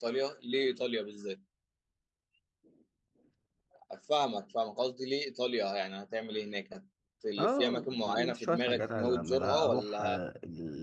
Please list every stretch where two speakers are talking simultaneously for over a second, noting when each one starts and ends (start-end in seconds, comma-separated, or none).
7.4-10.2